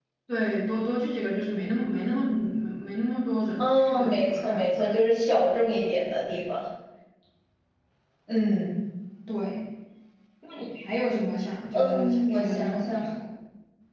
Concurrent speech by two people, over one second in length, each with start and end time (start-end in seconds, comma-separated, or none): 3.6-5.0, 11.7-13.0